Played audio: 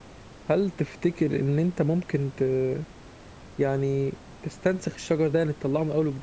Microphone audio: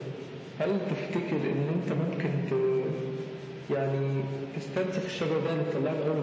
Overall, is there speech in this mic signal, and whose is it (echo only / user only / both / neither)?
echo only